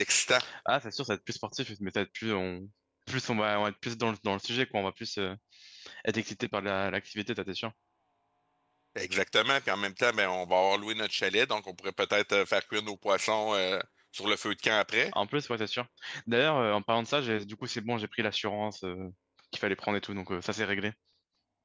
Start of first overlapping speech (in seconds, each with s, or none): none